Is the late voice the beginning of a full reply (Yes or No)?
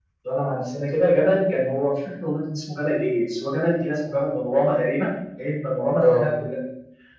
No